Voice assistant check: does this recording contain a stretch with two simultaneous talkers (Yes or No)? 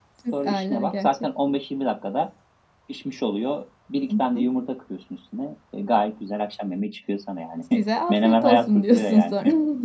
Yes